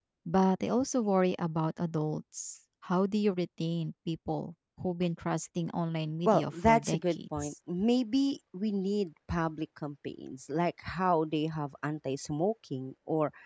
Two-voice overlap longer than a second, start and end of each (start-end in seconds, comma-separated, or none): 6.3-7.5